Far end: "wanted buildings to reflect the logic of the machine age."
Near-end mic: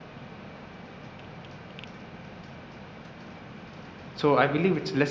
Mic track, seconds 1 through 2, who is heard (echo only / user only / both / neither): neither